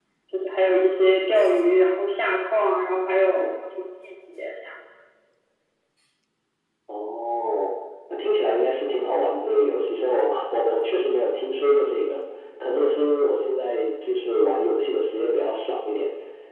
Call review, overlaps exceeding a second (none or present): none